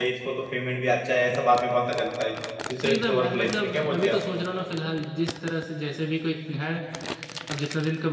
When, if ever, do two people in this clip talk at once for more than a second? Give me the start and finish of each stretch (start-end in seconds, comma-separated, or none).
2.9-4.2